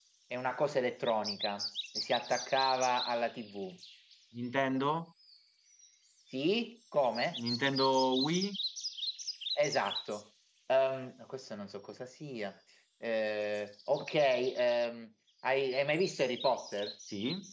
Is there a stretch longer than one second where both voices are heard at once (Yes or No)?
No